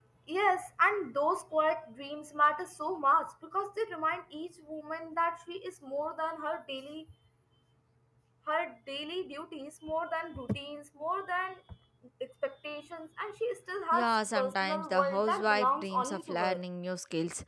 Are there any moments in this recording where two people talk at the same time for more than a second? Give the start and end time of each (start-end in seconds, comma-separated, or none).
13.9-16.6